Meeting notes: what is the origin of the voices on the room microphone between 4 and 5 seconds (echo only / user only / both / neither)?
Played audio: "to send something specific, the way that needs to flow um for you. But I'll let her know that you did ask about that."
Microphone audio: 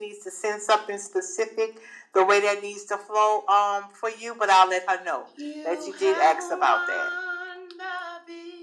echo only